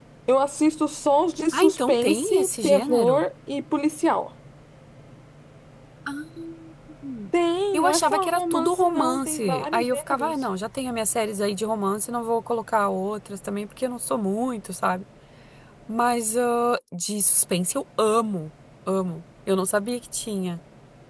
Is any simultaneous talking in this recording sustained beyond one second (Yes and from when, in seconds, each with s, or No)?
Yes, from 1.5 s